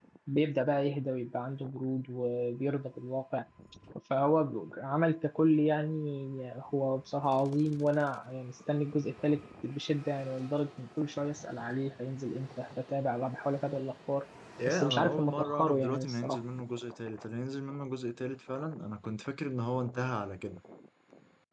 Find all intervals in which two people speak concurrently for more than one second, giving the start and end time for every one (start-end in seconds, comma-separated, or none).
14.7-16.4